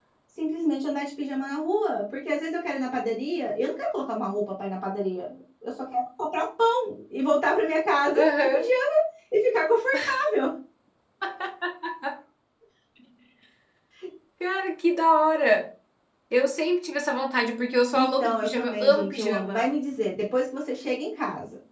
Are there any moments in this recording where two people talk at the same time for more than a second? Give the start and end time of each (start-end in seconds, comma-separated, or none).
17.9-19.6